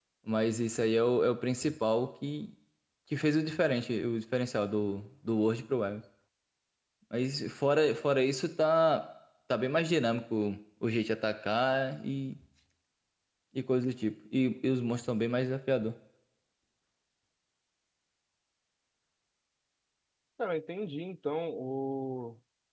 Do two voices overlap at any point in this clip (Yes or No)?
No